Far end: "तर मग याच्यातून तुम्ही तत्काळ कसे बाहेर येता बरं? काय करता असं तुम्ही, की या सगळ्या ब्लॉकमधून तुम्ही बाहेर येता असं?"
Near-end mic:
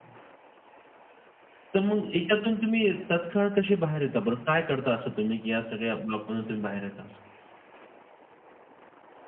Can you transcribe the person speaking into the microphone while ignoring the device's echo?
none

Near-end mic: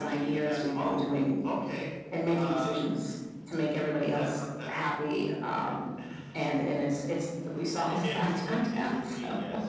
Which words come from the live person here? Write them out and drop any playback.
none

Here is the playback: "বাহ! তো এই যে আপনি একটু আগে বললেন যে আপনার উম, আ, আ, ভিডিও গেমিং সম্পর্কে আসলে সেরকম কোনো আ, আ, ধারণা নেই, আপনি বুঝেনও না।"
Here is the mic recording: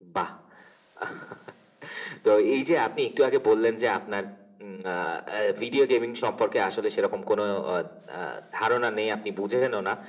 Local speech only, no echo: none

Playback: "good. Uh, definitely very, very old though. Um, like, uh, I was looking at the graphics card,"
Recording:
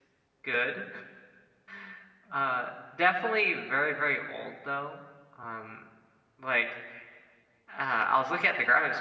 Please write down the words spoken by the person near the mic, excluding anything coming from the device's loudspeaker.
none

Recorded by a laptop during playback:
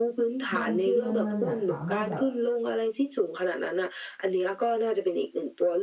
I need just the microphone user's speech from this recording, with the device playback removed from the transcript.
มันคือมันมันเนี่ยสามารถแบบ

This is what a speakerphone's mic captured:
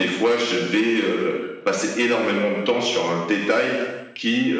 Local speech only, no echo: none

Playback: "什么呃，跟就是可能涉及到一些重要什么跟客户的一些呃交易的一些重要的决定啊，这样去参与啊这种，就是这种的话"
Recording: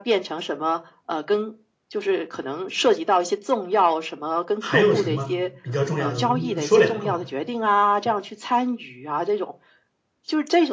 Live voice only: 还有什么比较重要的？我们说两个吧，

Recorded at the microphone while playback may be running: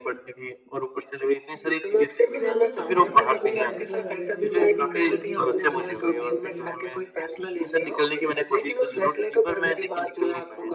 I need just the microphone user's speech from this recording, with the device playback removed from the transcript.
तो मैं जानना चाहूँगा कि जब आप ये फैसला कर रहे थे कि नौकरी ना करके व्यवसाय की शुरुआत करें,

